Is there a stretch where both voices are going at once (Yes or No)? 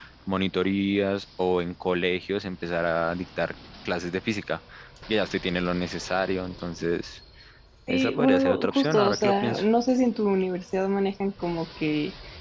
Yes